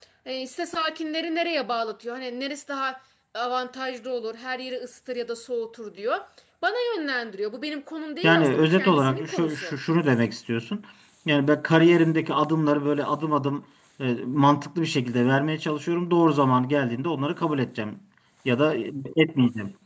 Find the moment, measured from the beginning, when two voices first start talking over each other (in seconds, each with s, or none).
8.2 s